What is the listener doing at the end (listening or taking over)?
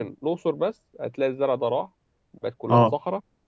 listening